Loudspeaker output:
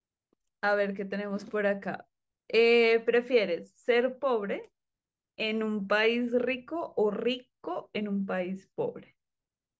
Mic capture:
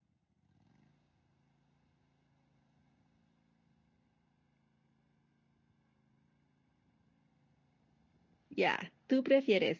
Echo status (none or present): none